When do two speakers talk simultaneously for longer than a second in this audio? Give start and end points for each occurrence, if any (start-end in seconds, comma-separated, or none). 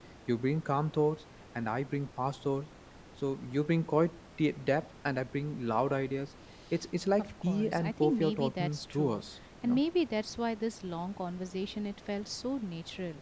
7.2-9.2